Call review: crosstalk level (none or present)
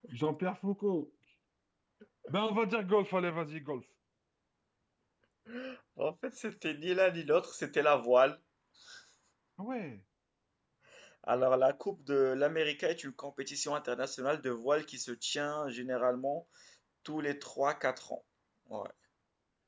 none